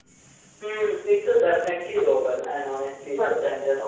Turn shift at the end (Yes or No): No